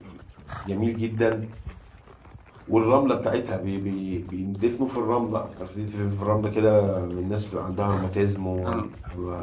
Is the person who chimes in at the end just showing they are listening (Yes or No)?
Yes